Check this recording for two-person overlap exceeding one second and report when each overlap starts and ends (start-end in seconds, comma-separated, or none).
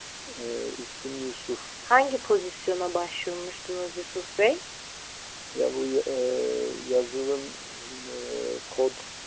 none